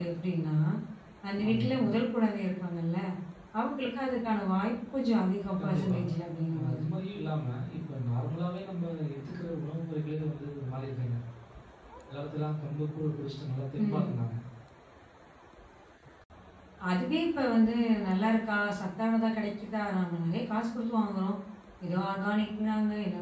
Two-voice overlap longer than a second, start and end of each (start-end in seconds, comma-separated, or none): none